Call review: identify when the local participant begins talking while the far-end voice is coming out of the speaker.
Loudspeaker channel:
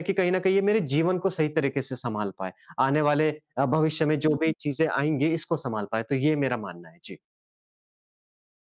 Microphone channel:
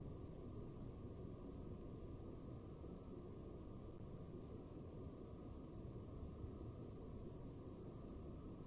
none

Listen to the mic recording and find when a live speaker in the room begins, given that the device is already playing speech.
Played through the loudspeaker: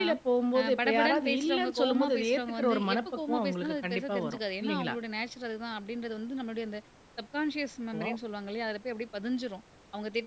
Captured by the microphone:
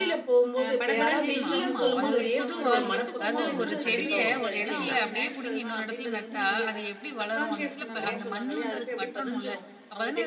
1.0 s

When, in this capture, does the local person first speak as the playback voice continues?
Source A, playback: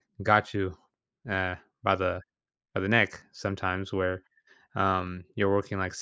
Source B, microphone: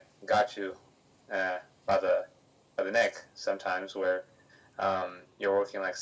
none

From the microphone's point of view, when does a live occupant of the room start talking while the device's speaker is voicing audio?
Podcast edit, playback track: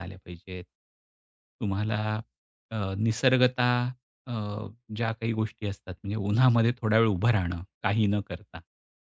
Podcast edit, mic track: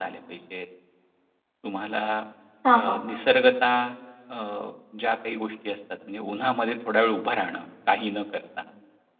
2.6 s

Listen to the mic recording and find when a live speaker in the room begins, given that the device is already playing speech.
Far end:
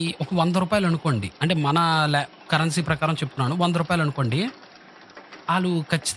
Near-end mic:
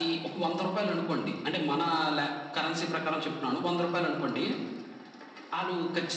none

